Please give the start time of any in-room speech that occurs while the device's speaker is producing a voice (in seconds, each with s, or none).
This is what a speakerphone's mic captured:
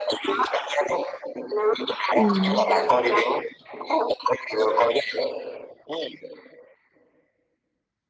2.1 s